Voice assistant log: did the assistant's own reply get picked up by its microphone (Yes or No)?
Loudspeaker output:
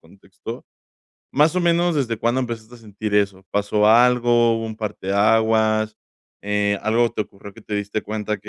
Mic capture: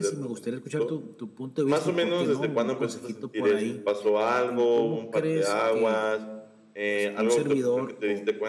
Yes